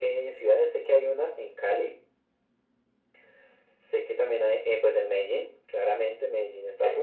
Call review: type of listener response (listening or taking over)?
taking over